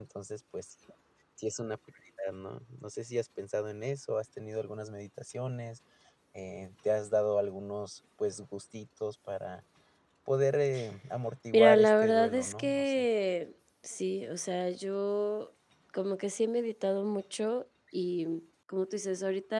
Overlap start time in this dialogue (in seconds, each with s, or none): 11.5 s